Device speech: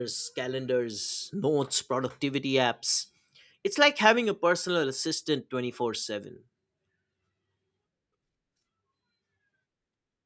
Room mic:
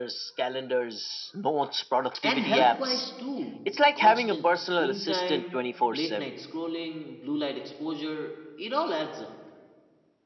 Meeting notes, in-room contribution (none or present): present